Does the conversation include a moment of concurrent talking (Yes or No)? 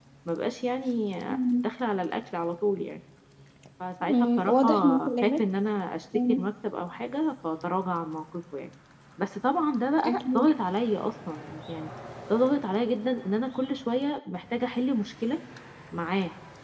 Yes